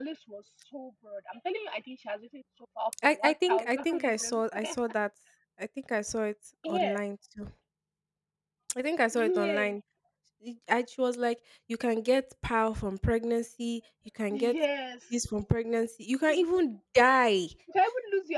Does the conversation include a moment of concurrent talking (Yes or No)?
Yes